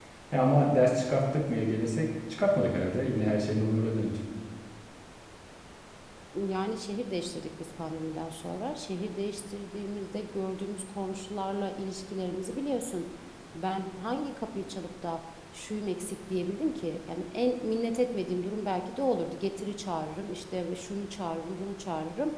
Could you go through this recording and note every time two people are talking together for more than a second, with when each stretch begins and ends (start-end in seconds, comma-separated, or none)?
none